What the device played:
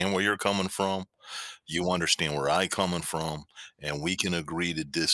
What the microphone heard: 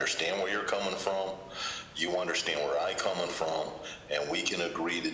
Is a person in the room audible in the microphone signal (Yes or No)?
No